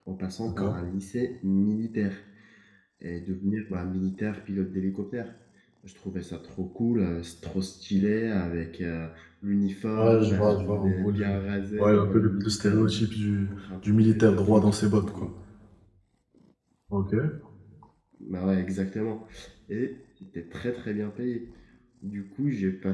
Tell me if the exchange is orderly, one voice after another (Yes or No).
No